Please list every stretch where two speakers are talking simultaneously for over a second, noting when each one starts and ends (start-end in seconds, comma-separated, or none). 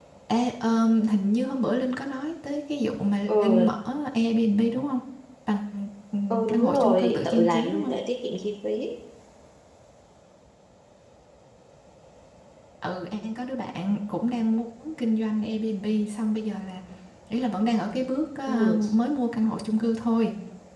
6.3-7.9